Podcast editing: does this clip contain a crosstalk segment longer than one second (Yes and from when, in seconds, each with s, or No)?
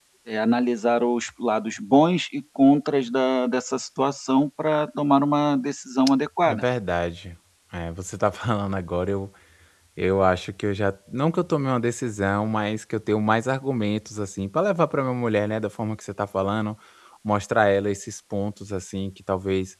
No